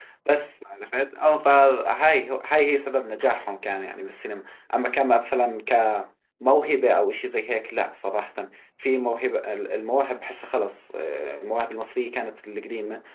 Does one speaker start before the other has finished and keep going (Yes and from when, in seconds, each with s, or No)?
No